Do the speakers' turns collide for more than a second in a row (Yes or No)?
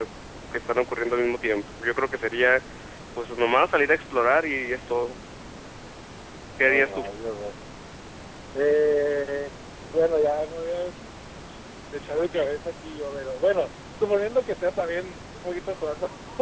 No